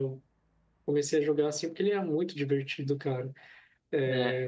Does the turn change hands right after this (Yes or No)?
No